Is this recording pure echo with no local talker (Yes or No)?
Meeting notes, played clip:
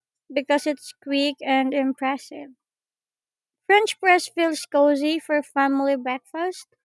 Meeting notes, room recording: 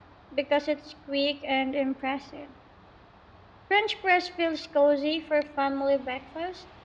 Yes